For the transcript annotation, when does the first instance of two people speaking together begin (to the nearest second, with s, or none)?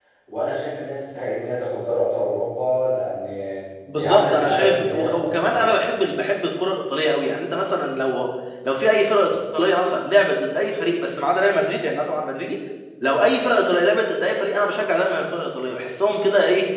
4 s